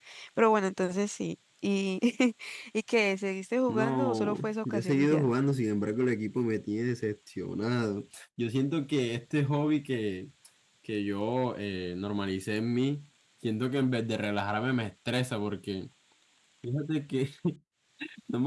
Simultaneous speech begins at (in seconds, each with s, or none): 3.7 s